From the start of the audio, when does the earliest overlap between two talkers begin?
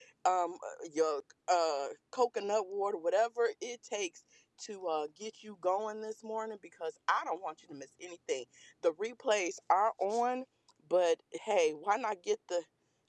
none

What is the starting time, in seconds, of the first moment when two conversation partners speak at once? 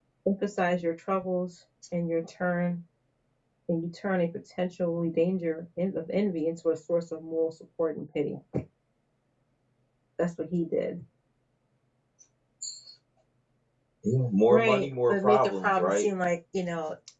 14.5 s

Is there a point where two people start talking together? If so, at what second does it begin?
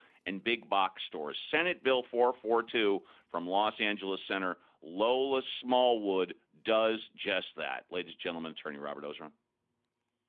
none

